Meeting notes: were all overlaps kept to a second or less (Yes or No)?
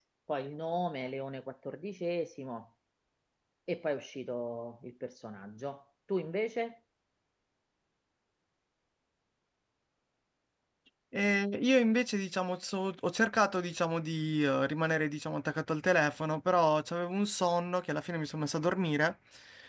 Yes